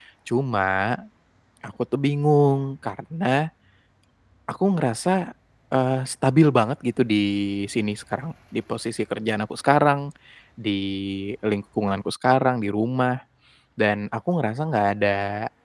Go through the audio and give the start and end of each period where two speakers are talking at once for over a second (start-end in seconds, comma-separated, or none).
none